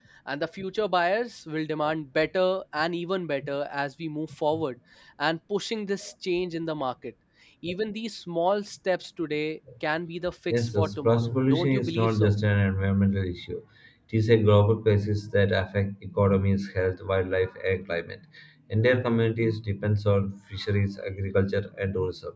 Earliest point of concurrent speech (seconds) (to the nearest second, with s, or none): 11 s